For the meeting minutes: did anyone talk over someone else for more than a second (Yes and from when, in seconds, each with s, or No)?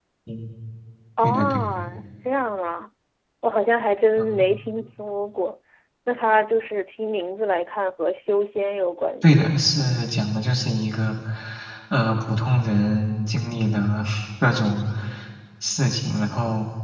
No